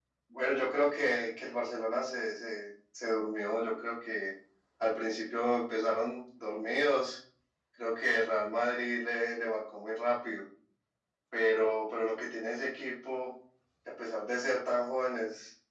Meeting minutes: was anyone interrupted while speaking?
No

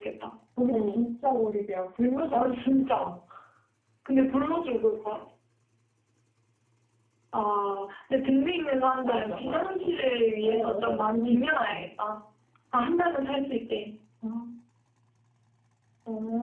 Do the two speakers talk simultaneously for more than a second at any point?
Yes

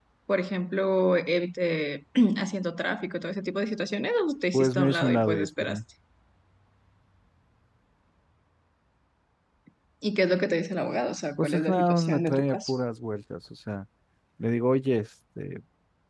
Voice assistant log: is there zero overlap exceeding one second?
No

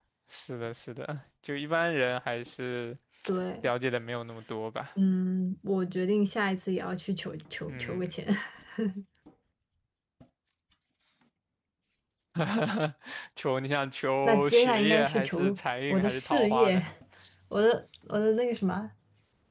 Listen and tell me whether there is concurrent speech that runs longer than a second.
Yes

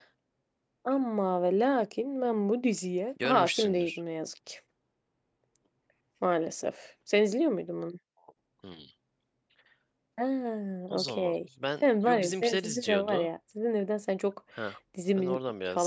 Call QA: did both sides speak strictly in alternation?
No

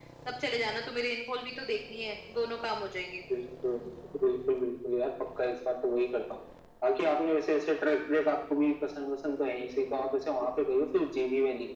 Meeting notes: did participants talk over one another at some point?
No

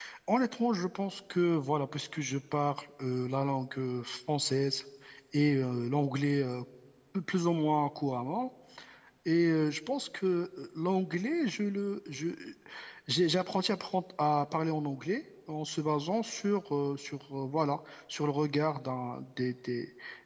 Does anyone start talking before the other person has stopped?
No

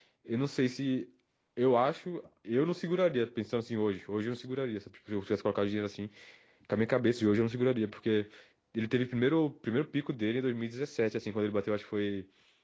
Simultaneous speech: No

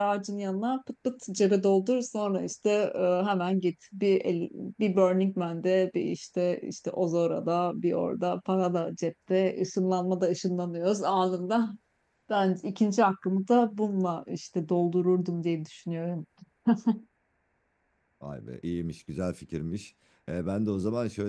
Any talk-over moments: No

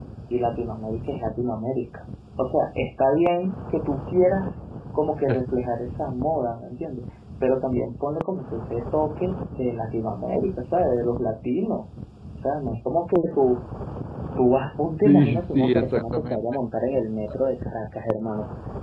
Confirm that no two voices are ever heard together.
No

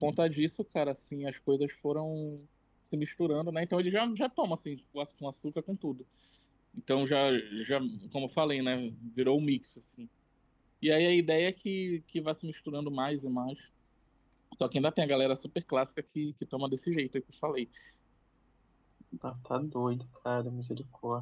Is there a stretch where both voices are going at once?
No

